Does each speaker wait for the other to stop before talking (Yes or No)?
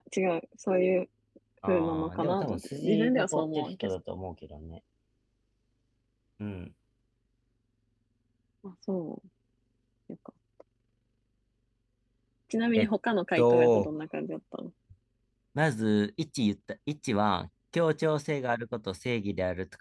No